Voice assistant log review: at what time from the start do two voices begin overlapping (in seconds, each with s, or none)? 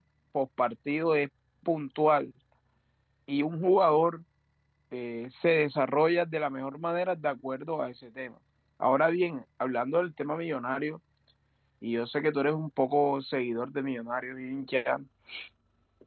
none